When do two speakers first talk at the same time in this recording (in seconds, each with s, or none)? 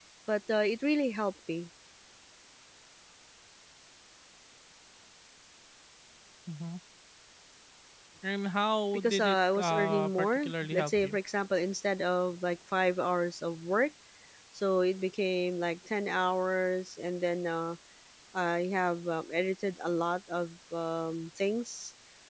8.9 s